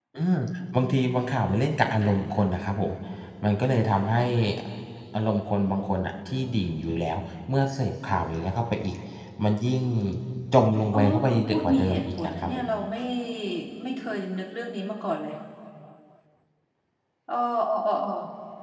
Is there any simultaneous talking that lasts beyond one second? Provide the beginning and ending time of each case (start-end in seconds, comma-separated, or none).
10.9-12.7